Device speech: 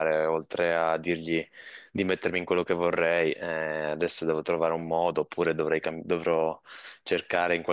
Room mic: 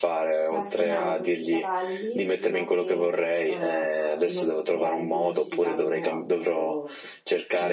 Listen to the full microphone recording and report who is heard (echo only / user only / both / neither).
both